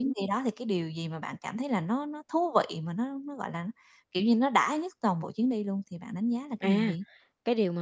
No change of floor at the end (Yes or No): No